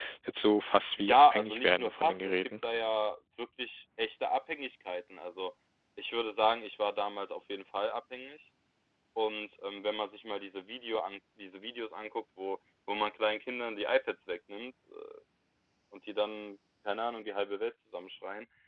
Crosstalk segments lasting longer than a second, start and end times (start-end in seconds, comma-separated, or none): 1.0-2.4